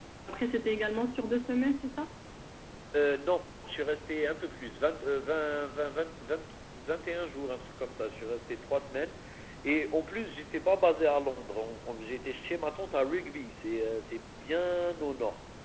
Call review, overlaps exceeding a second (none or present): none